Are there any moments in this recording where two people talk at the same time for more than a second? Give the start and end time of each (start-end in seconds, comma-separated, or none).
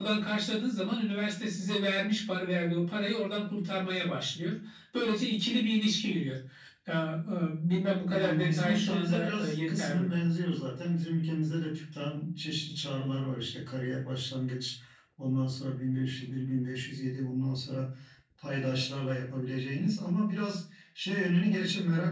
8.1-10.2